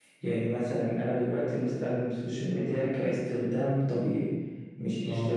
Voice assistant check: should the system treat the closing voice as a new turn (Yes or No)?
No